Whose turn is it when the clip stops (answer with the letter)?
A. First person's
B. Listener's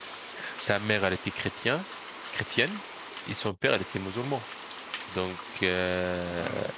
A